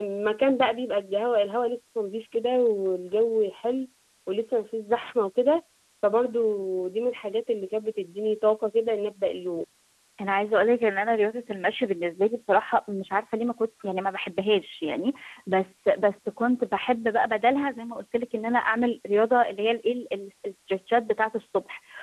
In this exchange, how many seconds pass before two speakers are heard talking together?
none

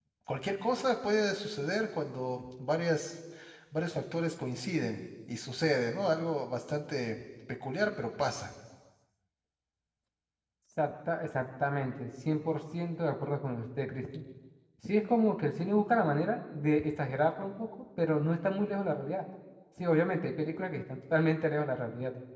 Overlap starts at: none

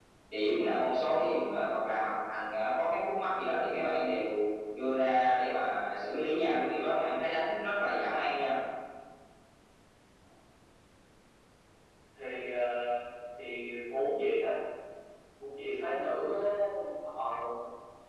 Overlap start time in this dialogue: none

